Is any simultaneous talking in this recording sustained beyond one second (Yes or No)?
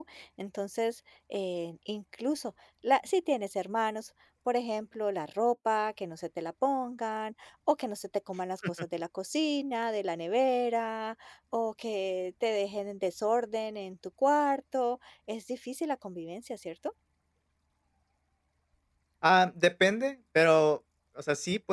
No